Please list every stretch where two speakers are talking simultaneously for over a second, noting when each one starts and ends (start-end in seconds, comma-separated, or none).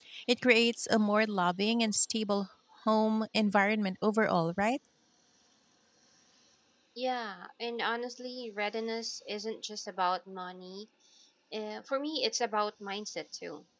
none